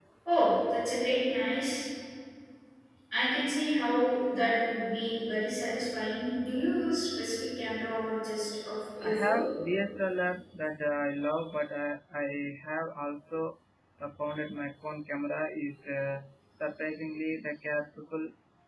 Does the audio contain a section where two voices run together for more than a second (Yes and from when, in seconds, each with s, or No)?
No